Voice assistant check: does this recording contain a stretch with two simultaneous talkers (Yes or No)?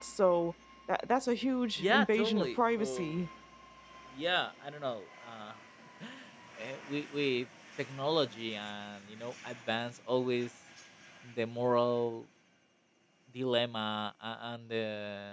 Yes